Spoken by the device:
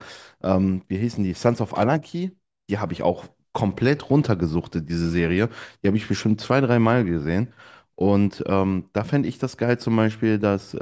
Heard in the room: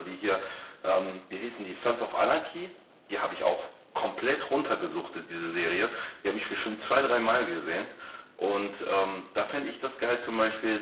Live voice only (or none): none